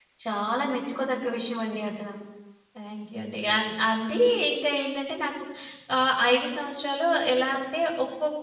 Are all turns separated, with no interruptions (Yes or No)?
Yes